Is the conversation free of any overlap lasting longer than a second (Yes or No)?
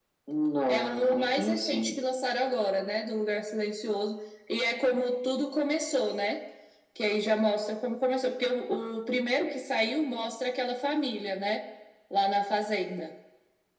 No